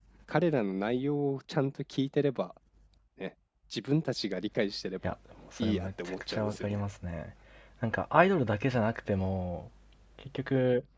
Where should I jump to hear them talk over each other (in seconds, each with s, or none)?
5.6 s